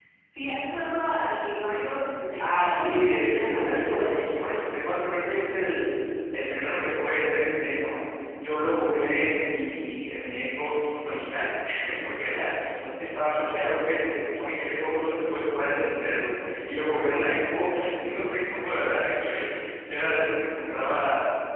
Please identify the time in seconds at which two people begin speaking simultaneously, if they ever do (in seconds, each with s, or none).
2.4 s